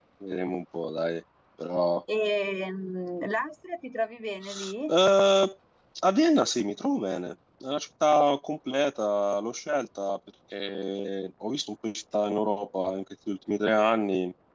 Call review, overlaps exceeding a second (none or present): none